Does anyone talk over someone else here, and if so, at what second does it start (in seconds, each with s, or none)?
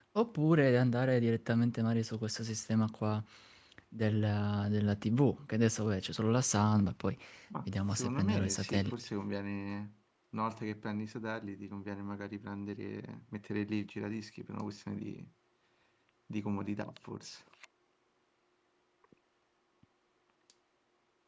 7.6 s